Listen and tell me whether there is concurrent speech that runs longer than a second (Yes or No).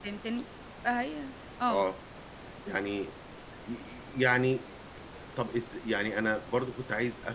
No